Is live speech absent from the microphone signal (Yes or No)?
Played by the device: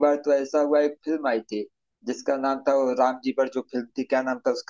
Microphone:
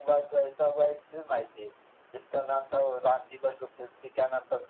Yes